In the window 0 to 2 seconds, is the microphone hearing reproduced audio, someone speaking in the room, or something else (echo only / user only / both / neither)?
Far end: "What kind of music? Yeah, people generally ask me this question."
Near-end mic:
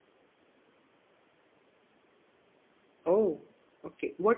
neither